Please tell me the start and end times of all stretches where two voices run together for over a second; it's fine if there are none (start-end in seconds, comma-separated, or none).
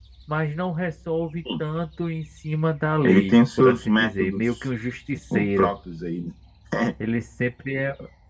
3.0-4.6